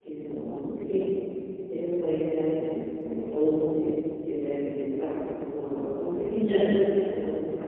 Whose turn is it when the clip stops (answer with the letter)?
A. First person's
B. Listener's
A